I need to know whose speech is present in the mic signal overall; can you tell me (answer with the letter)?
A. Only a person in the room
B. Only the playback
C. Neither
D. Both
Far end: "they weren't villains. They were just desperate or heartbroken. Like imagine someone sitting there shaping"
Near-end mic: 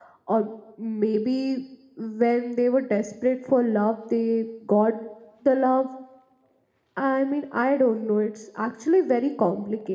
A